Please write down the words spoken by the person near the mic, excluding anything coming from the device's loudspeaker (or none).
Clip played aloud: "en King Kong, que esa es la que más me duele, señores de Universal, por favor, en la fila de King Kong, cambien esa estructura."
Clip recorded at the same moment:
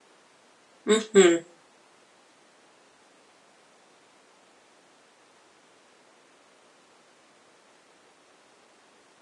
Ujú.